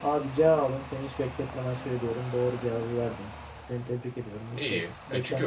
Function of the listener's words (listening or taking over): taking over